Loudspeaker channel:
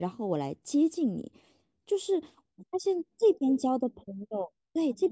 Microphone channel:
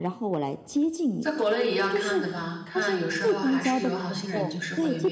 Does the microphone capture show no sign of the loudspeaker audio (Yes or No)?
No